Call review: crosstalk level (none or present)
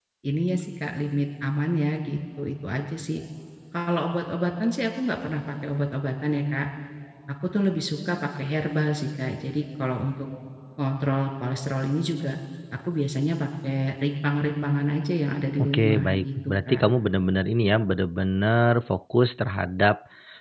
present